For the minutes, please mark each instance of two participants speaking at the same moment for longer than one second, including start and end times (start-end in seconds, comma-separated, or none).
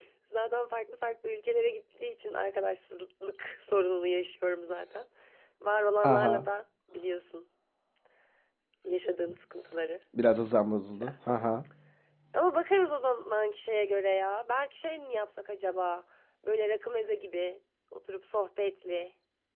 none